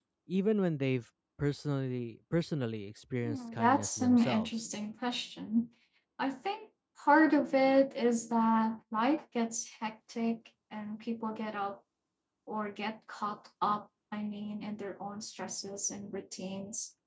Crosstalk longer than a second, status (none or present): present